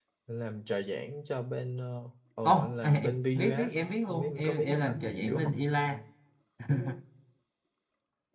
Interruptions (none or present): present